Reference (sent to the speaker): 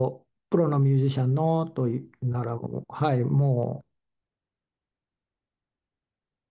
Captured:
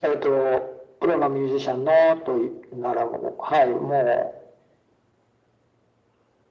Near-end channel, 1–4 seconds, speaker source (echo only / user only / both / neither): echo only